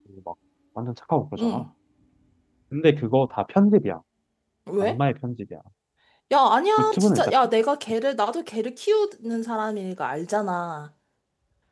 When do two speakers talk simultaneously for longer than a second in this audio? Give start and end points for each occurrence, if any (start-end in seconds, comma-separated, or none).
none